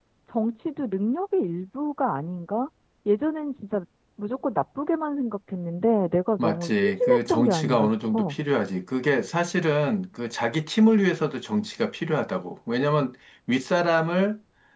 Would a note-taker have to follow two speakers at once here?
Yes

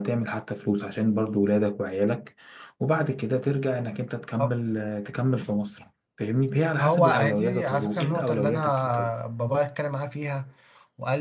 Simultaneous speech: Yes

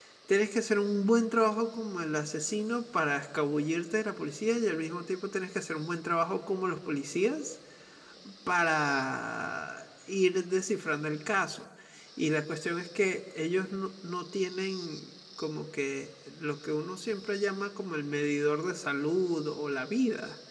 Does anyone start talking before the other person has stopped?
No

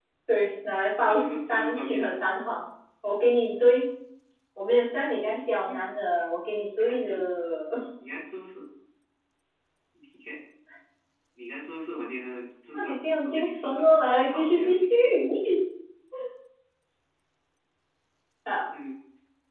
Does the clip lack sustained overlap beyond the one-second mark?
No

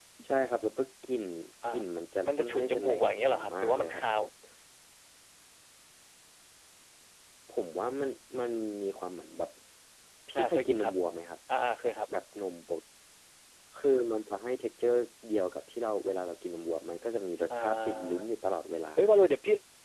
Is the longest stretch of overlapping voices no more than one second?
No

